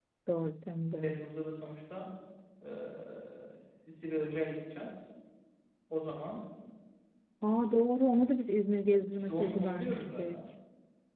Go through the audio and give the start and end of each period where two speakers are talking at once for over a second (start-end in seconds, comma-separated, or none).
9.2-10.4